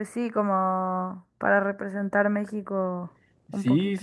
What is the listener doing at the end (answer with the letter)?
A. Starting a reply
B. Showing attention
A